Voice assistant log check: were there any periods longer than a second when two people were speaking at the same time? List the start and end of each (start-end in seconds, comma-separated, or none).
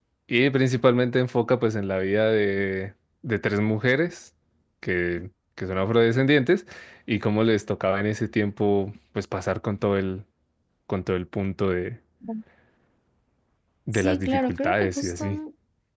13.9-15.4